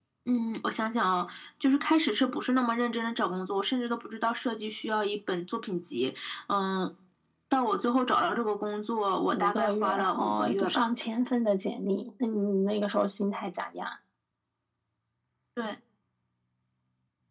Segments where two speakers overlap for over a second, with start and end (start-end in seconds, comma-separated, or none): 9.3-10.9